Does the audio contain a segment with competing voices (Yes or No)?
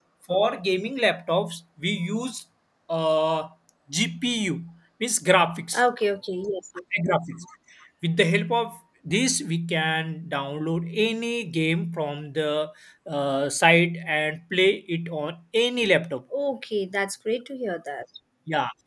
No